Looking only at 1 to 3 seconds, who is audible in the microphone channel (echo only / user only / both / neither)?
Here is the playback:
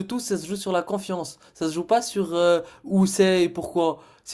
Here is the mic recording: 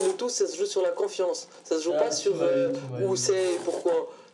both